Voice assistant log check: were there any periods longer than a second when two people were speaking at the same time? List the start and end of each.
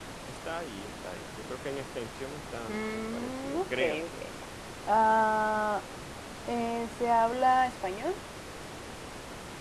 2.7-4.2

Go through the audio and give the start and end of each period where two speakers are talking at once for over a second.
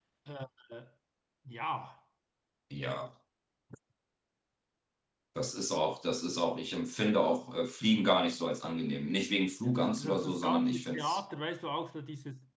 9.6-11.2

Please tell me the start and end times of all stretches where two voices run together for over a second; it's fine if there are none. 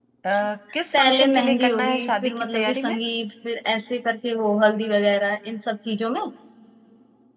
0.9-3.0

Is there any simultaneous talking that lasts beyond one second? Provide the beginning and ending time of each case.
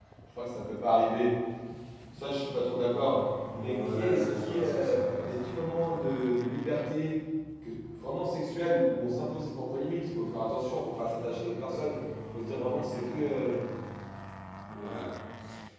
3.6-6.0

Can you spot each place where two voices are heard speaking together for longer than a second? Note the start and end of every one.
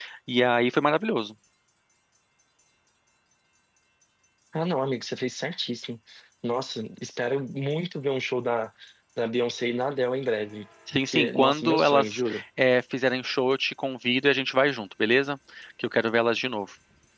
11.1-12.4

